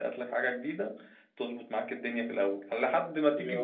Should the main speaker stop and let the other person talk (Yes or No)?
No